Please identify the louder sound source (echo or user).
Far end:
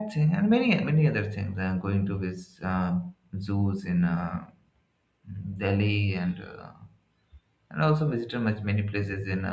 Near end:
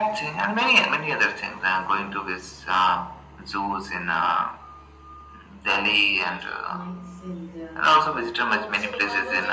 echo